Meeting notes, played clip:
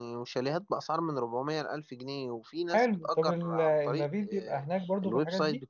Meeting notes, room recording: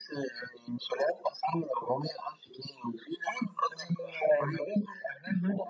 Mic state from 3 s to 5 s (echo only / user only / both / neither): echo only